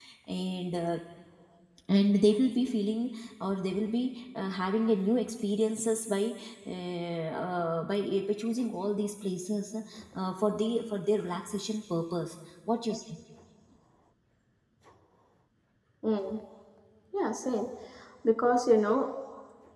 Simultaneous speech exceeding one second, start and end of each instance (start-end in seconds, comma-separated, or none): none